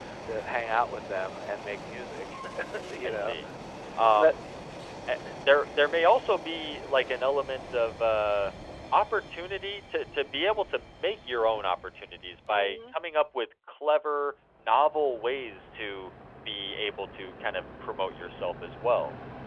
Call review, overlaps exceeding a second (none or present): none